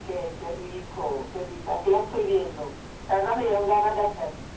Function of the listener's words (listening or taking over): listening